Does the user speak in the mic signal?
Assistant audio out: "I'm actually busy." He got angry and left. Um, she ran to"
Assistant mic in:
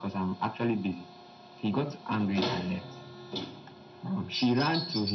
No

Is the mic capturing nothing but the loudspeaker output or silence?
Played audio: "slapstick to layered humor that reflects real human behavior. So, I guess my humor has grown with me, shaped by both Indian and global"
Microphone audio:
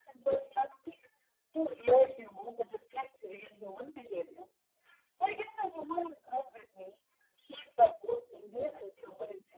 Yes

